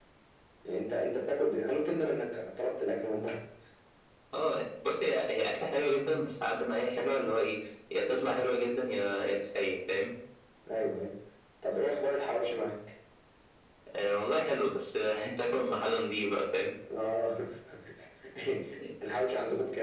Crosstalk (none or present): none